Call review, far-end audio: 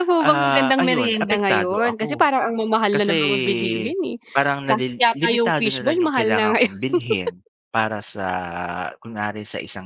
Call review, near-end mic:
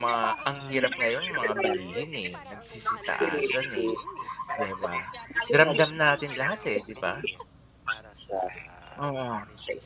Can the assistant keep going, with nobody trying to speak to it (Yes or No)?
No